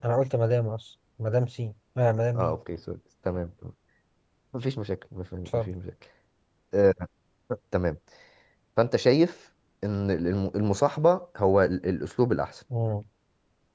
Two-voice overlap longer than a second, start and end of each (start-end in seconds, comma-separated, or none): none